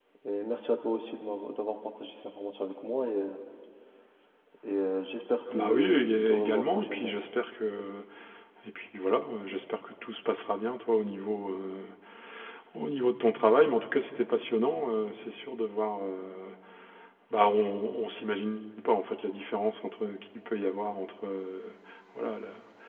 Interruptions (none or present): present